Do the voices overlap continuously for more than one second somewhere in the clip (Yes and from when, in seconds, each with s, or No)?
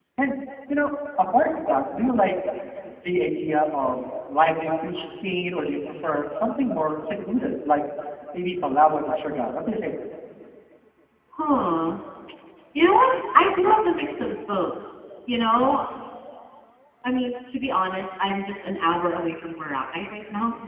No